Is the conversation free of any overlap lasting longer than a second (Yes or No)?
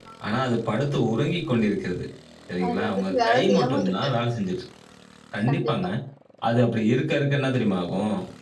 No